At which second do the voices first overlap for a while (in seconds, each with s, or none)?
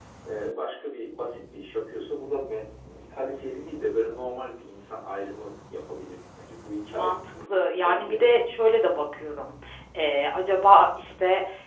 6.9 s